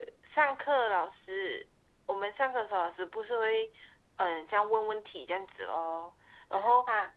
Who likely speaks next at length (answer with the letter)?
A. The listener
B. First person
B